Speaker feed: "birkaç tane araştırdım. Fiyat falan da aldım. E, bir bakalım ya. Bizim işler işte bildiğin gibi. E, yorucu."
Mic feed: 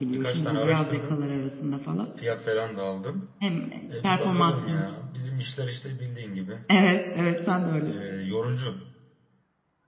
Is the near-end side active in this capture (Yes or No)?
Yes